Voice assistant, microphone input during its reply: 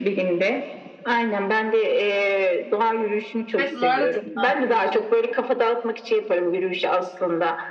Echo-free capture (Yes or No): No